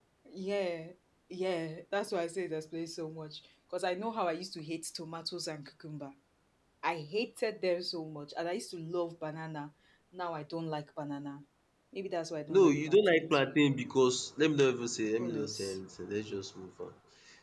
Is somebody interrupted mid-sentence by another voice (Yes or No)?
Yes